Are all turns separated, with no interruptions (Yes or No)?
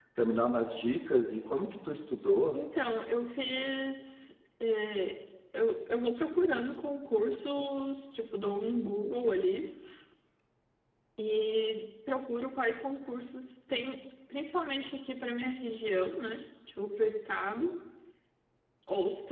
Yes